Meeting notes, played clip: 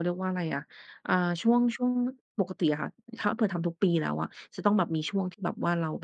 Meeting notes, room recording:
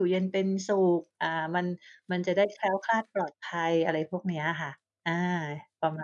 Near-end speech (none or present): present